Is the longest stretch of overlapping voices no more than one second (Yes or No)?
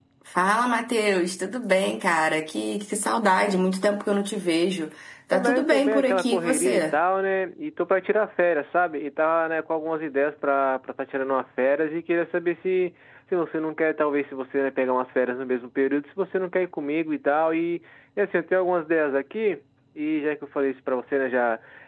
No